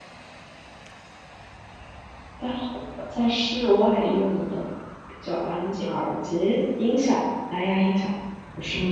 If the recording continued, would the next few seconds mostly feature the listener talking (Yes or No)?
Yes